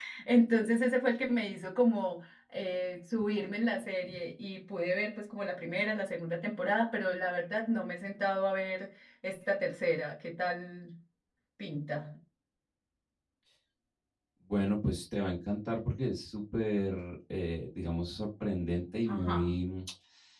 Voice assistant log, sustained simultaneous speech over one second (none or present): none